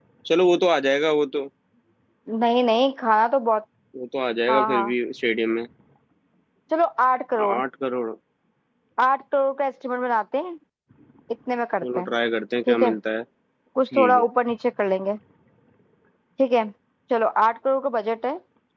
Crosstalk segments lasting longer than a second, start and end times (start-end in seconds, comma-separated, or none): none